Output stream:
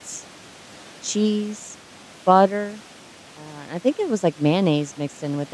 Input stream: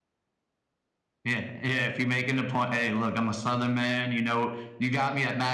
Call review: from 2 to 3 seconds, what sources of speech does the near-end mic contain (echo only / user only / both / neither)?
user only